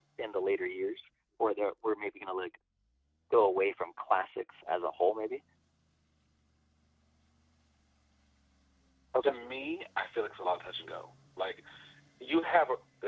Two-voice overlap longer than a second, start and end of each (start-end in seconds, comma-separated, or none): none